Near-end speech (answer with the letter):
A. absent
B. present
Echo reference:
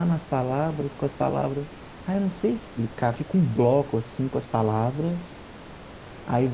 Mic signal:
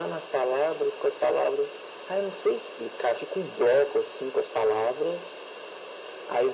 A